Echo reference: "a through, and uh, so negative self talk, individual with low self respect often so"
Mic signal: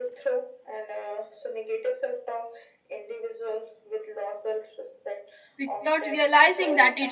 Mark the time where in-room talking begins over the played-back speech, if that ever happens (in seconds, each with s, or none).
5.6 s